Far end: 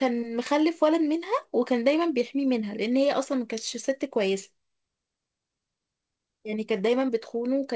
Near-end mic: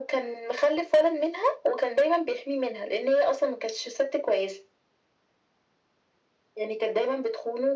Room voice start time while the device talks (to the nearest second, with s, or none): none